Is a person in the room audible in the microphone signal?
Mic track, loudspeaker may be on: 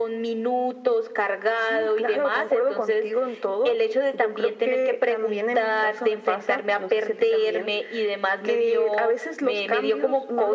No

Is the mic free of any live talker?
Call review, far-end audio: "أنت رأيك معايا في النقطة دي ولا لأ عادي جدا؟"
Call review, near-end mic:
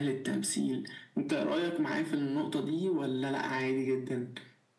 Yes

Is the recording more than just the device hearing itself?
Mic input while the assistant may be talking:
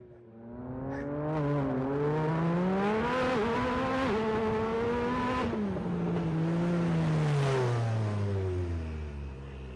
No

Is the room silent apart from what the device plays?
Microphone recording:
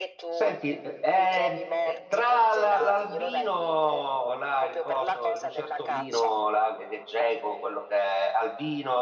No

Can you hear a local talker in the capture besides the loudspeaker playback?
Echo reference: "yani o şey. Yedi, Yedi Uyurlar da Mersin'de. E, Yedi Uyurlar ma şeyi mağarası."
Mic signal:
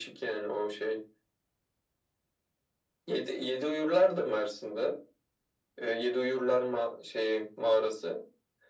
No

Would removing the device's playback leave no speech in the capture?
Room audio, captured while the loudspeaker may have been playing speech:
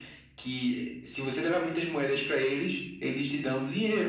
Yes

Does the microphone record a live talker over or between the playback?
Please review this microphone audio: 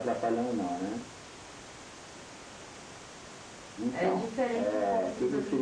Yes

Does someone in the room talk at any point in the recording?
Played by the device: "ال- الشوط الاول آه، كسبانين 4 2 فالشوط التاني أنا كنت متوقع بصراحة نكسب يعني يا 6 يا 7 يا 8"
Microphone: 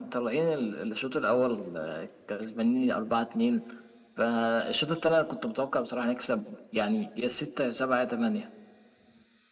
No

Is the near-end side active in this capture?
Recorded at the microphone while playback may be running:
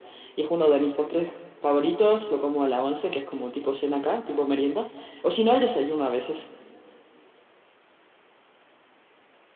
No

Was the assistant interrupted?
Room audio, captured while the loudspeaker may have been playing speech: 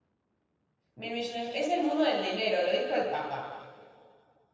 Yes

